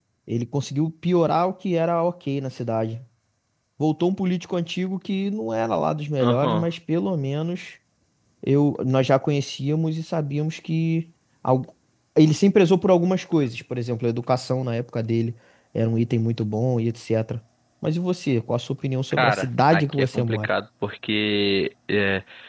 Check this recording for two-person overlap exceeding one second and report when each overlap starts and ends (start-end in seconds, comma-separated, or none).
19.1-20.5